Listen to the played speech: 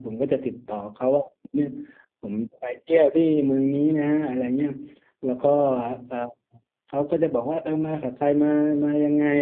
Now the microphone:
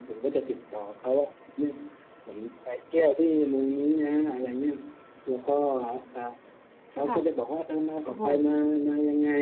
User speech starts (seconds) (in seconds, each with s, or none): 6.9 s